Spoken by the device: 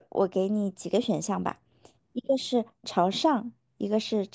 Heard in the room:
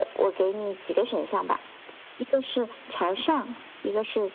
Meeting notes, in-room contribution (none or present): none